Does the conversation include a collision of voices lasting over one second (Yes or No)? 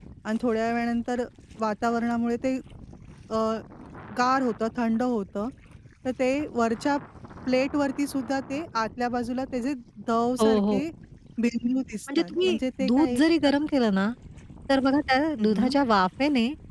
Yes